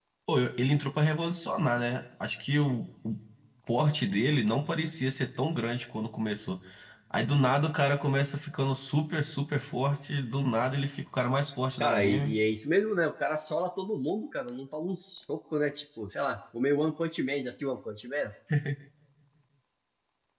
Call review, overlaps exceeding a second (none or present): none